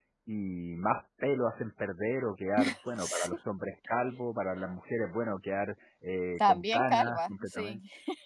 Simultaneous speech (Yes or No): Yes